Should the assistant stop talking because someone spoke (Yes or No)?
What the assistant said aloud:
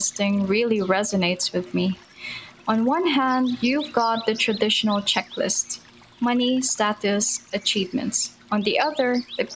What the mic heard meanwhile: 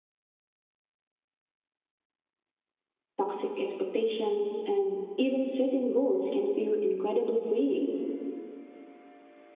Yes